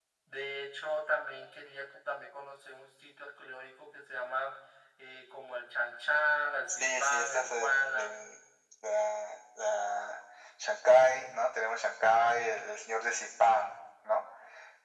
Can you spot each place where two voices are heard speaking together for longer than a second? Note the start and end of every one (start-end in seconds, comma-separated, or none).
6.7-8.4